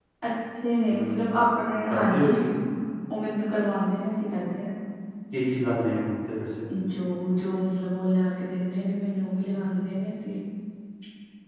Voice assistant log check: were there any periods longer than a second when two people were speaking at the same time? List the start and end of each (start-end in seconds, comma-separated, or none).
none